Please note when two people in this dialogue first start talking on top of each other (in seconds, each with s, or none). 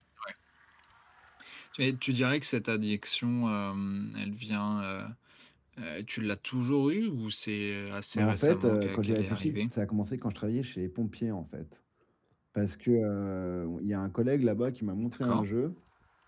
8.1 s